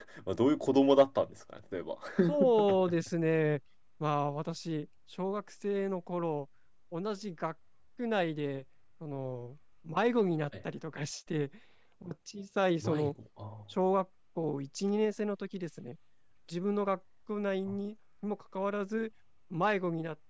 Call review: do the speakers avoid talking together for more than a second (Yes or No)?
Yes